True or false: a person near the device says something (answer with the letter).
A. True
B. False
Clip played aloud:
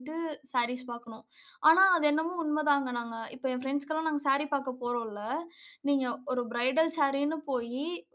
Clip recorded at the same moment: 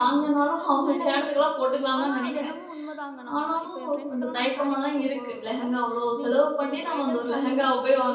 A